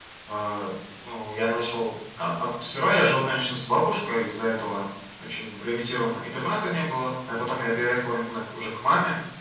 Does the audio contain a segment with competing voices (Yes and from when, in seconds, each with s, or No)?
No